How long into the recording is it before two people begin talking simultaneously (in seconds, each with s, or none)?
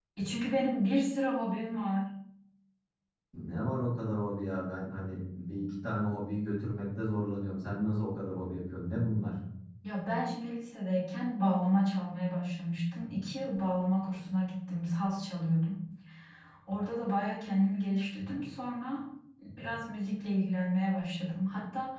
none